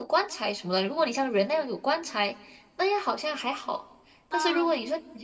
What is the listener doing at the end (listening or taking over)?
listening